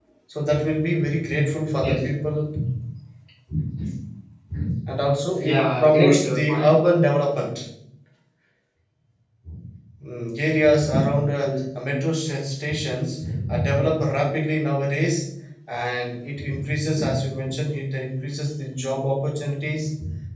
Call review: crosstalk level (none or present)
present